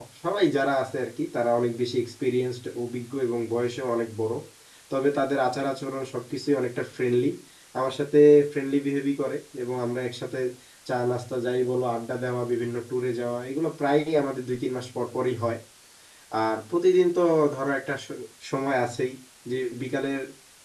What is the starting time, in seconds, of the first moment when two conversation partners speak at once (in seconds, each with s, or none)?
none